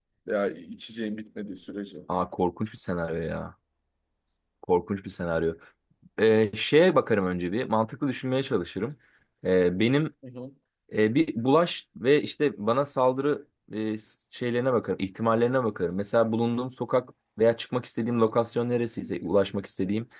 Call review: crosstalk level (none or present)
none